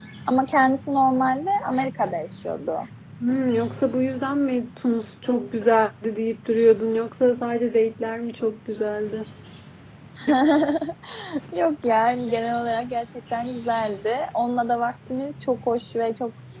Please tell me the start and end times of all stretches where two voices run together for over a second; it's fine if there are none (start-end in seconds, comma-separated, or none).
none